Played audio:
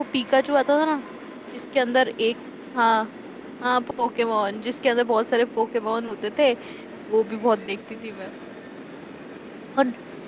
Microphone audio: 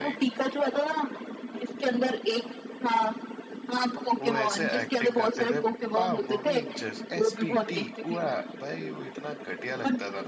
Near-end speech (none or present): present